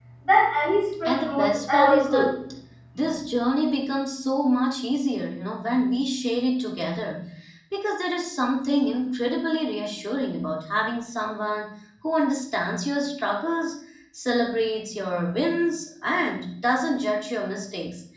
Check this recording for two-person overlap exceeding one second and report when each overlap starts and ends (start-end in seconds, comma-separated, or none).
1.1-2.3